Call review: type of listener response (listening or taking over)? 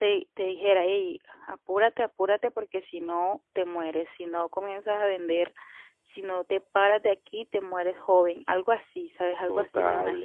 taking over